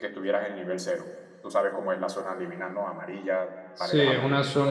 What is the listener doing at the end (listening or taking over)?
taking over